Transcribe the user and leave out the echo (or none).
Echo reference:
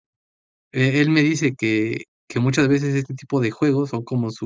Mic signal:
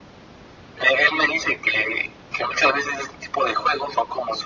none